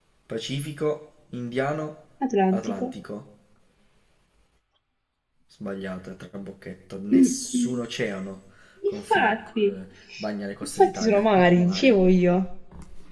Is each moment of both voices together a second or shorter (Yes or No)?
No